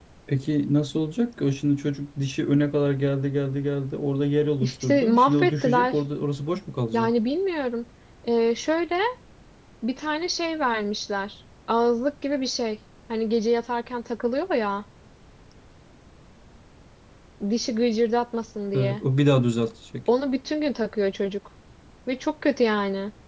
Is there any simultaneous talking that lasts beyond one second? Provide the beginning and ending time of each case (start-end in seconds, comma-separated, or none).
4.6-6.0